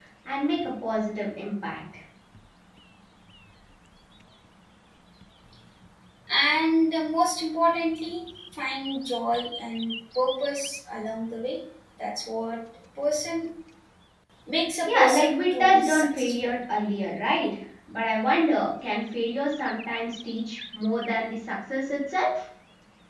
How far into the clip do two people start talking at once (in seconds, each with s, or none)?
14.9 s